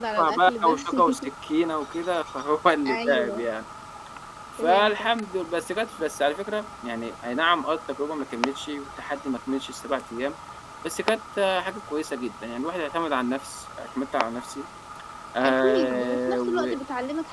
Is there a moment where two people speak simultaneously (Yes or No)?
Yes